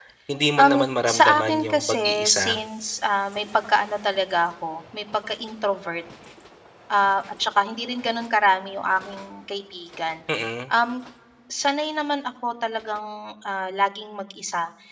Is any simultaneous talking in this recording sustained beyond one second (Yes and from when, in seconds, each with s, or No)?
Yes, from 0.6 s